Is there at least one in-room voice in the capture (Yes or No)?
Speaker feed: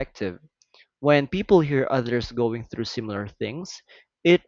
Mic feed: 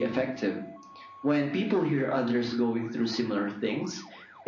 No